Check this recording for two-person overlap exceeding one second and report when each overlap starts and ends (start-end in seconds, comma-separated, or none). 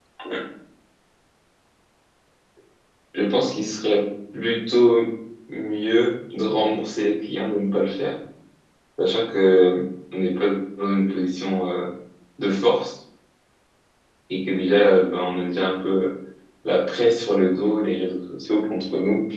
none